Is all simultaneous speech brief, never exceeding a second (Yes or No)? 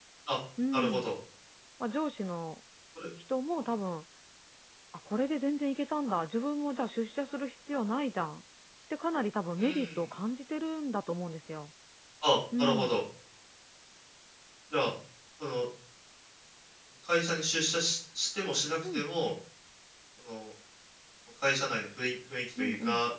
Yes